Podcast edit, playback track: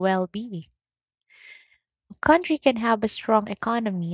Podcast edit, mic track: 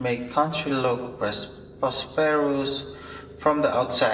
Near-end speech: present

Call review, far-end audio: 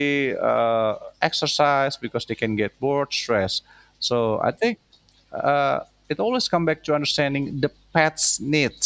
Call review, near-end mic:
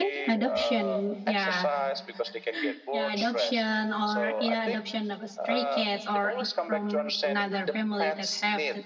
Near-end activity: present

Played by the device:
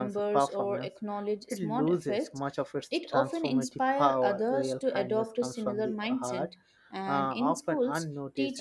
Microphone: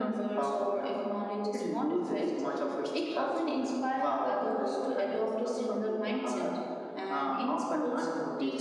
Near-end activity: none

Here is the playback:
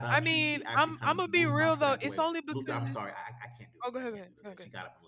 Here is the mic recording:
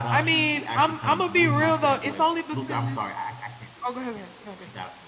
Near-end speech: none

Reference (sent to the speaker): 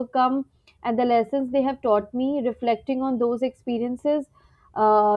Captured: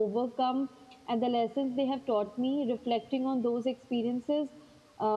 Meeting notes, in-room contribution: none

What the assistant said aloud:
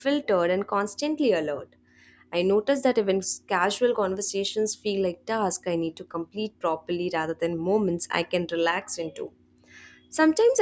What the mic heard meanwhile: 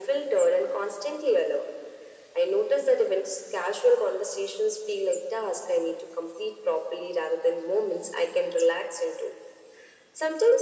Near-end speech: none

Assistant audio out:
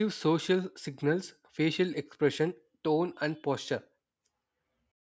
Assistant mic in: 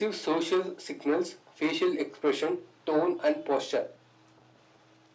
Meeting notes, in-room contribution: none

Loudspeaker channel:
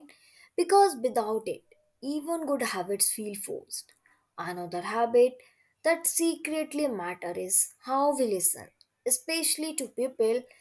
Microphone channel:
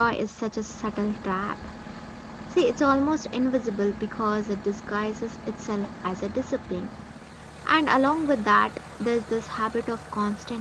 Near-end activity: present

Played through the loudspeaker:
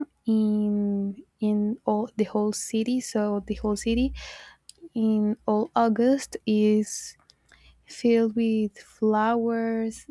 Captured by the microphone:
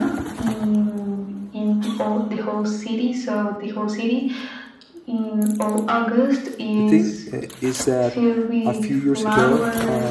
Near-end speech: present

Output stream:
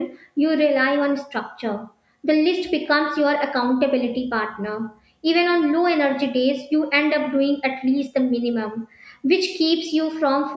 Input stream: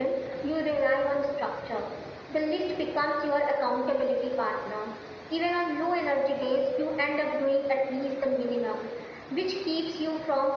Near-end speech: none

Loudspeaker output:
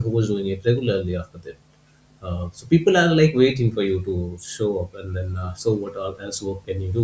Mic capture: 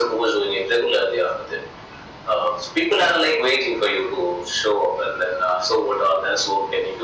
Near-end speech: none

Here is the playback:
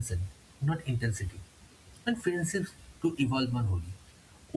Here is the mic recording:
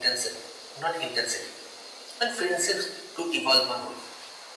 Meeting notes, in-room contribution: none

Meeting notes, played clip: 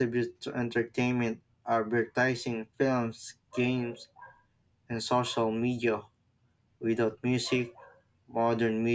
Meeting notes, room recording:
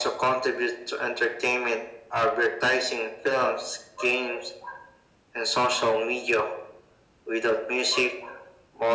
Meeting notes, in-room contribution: none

